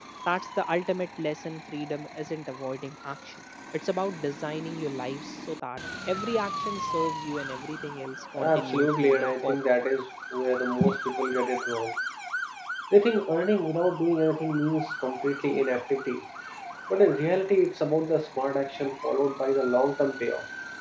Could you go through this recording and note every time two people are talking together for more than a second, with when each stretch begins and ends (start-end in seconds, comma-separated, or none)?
8.4-9.7